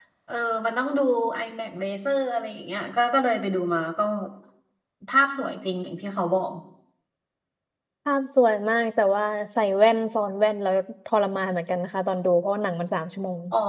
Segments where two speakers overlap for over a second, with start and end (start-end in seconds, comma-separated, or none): none